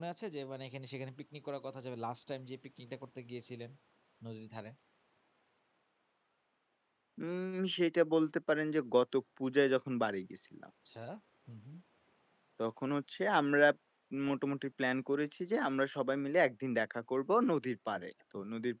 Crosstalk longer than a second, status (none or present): none